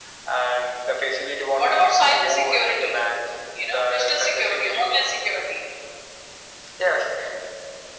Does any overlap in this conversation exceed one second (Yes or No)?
Yes